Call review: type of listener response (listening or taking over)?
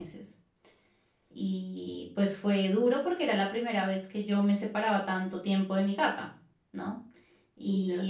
listening